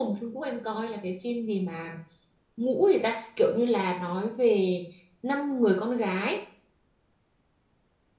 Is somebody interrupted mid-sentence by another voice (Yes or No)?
No